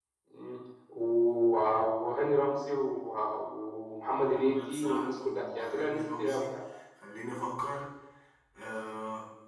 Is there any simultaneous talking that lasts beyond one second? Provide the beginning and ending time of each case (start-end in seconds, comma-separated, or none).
4.2-6.5